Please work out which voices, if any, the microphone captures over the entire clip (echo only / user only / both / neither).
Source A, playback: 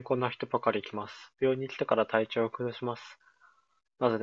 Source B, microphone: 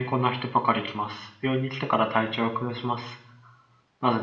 echo only